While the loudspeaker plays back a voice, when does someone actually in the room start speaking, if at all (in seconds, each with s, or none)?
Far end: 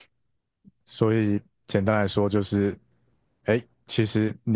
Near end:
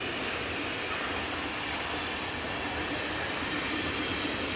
none